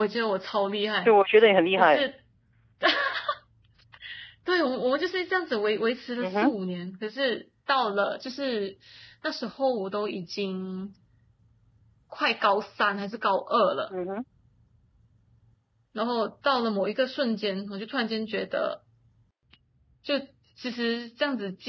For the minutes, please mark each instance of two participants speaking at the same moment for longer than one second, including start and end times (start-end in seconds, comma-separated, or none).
none